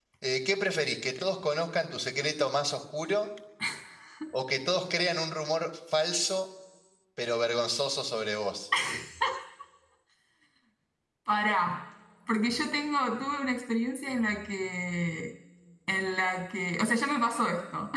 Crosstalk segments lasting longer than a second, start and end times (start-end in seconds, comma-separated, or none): none